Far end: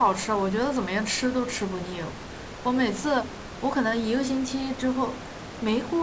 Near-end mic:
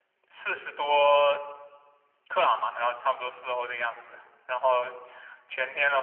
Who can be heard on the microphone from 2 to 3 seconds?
user only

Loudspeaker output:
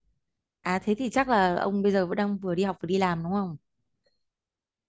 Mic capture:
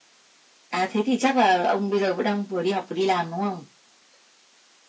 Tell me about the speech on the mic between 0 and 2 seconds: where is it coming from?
echo only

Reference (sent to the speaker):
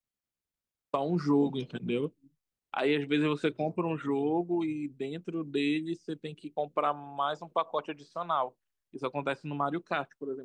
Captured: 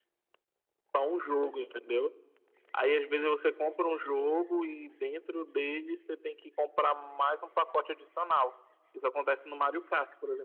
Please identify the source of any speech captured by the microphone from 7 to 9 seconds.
echo only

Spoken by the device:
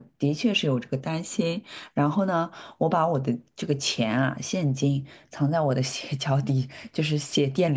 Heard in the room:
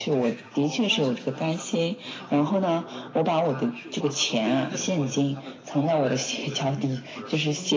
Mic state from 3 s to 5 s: both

